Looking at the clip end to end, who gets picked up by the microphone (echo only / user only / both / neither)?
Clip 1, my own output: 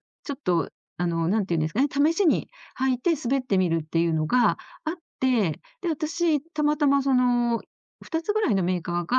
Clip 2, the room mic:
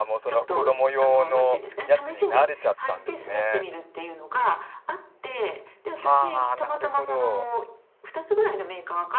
both